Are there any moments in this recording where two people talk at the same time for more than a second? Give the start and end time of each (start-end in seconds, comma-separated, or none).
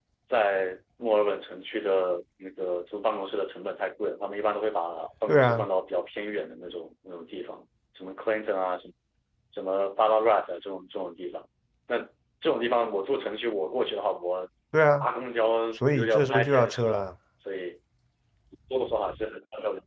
15.8-17.0